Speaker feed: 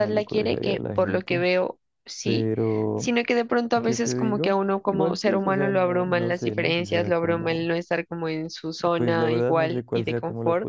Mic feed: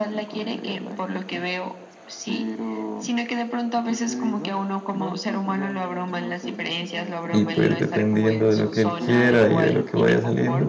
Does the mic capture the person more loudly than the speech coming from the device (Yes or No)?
Yes